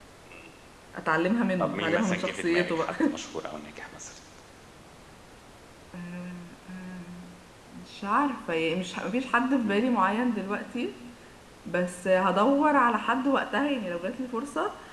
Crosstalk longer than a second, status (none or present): present